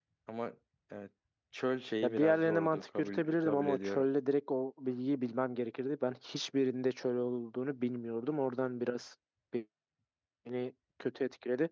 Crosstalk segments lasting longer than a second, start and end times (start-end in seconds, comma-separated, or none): 2.0-4.1